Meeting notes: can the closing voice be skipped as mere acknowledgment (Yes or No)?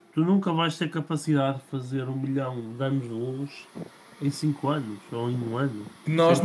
No